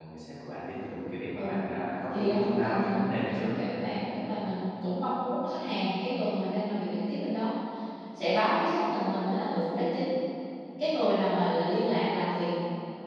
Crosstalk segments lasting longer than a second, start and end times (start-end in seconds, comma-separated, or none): 2.1-3.5